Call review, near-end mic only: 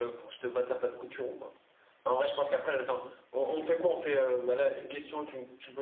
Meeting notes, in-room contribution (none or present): present